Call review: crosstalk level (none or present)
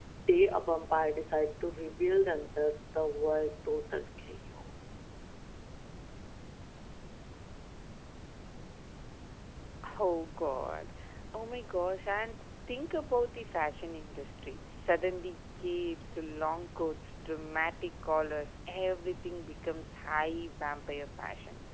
none